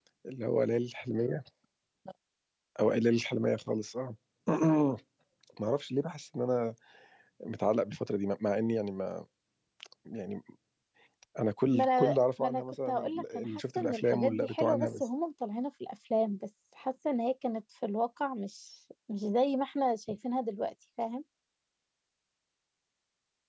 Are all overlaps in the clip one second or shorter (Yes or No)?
No